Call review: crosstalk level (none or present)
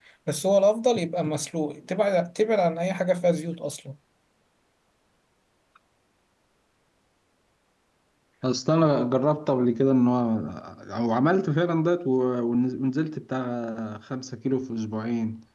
none